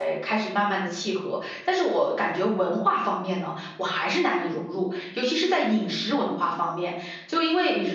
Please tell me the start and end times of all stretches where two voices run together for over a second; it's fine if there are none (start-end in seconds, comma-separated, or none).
none